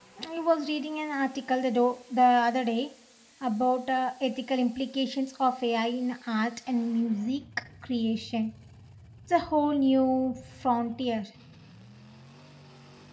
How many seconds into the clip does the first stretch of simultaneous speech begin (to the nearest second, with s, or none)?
none